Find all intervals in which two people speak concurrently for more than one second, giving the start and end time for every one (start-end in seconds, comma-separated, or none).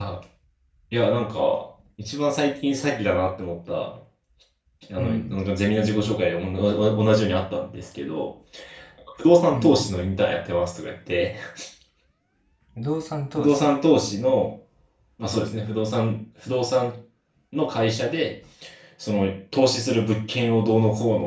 none